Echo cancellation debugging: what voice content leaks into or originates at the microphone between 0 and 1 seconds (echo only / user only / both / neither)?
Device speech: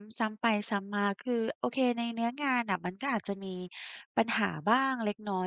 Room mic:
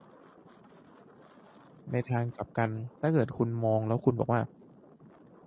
neither